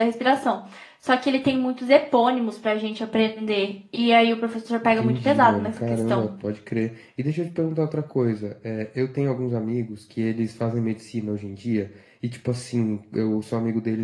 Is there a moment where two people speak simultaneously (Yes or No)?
Yes